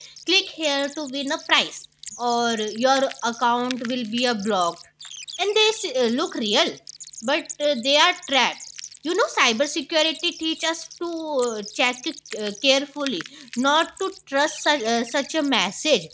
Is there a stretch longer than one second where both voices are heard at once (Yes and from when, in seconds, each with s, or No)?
No